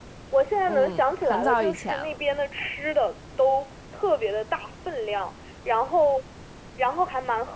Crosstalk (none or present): present